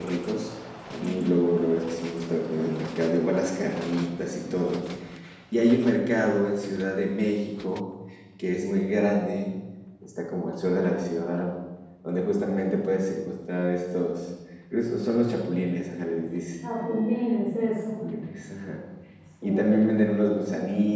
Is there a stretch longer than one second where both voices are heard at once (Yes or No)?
No